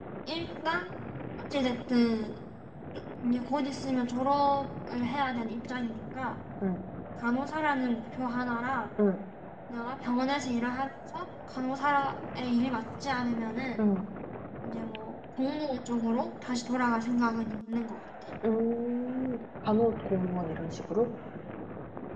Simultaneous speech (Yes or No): No